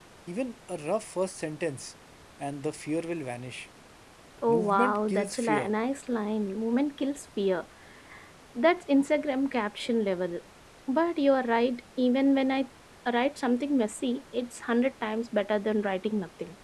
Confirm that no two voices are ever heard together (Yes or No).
No